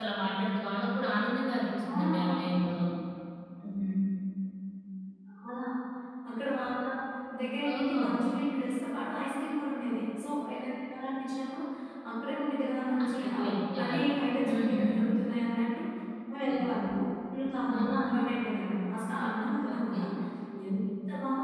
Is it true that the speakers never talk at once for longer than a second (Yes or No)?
Yes